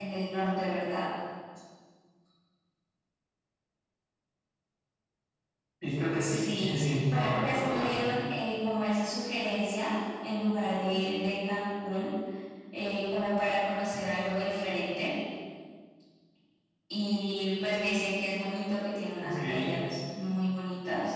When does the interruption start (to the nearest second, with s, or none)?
6 s